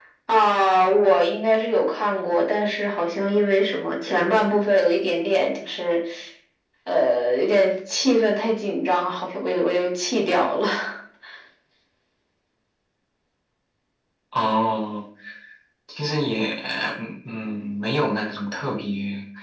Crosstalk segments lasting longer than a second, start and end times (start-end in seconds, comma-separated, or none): none